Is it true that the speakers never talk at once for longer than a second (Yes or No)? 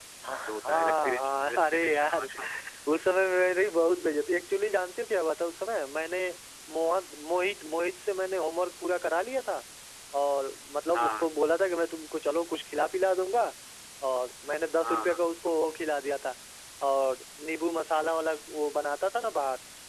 No